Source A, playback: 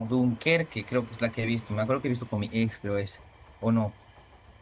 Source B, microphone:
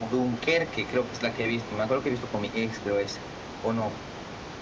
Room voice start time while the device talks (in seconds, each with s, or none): none